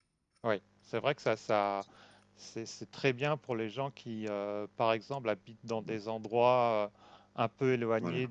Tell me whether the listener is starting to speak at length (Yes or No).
No